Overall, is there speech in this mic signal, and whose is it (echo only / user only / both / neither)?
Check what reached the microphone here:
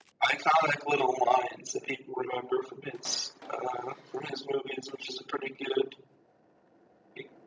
echo only